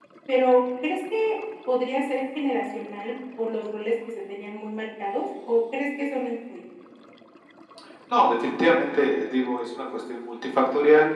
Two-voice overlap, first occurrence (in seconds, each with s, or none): none